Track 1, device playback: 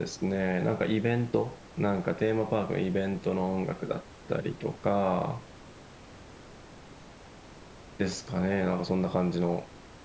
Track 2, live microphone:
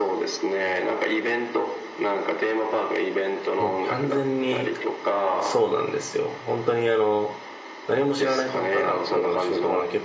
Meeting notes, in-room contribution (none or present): present